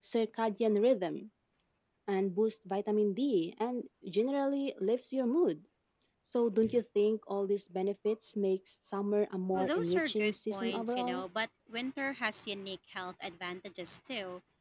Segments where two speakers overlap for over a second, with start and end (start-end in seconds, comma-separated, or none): 9.5-11.2